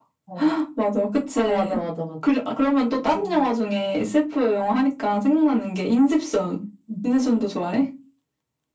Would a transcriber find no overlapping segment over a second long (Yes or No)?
Yes